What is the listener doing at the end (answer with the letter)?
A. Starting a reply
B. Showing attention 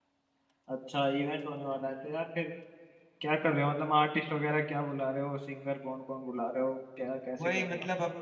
A